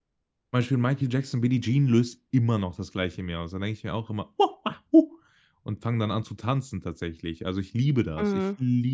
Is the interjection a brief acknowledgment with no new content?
Yes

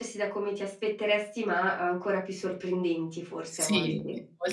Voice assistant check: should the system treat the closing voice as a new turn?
Yes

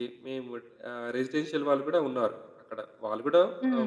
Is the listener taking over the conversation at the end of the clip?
No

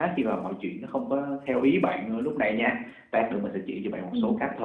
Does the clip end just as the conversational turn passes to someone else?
No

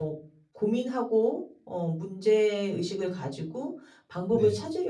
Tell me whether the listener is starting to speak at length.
No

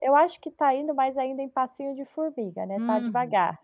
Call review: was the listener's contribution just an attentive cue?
No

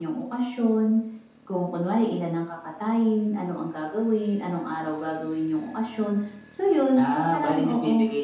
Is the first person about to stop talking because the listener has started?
Yes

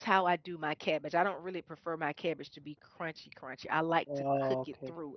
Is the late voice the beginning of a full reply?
Yes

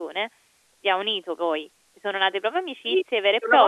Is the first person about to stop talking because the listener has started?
Yes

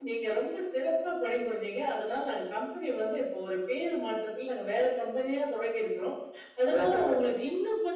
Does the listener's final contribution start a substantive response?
No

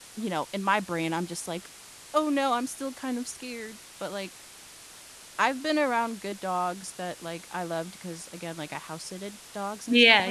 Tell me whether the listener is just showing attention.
No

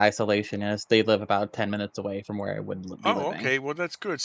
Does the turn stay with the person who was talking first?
No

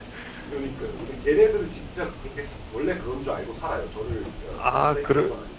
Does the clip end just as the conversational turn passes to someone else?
Yes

